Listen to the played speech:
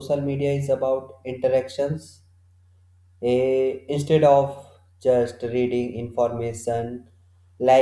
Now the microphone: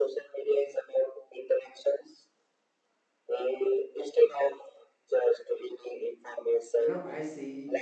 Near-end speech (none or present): present